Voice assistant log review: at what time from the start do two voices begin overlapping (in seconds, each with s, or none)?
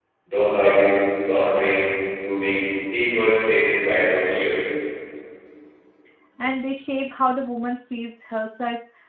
none